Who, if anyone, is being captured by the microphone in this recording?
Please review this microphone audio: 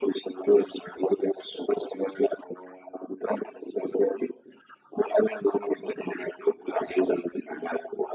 echo only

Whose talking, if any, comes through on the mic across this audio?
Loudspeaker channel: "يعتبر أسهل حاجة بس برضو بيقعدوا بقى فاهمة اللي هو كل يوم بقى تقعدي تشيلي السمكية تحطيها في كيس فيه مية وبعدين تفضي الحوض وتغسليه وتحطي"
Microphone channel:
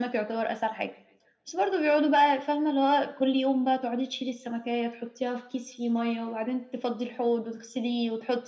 echo only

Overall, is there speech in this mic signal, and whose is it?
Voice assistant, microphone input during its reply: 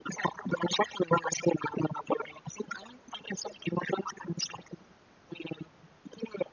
echo only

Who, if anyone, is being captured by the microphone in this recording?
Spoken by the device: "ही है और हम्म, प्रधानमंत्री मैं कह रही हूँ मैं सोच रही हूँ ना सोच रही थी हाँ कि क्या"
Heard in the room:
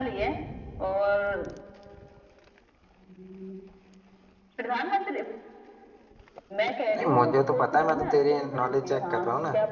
both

